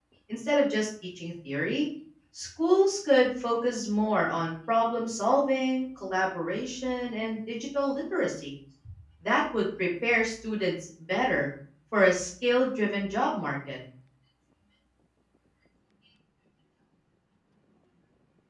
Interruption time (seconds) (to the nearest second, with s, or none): none